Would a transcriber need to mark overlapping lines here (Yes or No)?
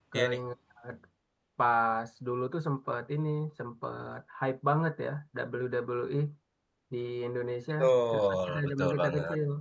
Yes